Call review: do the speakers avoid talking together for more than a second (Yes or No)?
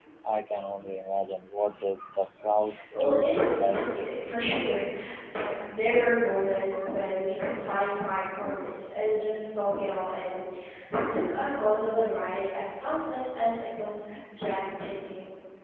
No